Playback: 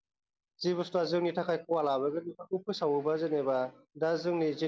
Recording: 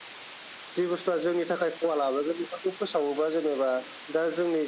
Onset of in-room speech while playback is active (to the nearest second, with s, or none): none